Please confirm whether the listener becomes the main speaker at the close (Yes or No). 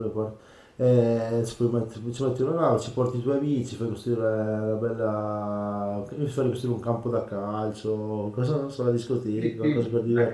Yes